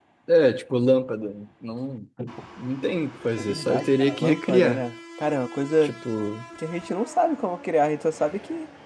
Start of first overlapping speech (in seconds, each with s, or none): 3.4 s